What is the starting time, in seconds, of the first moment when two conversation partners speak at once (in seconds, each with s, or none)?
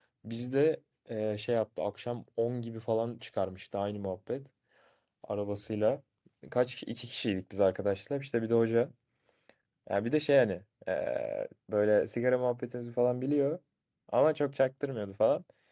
none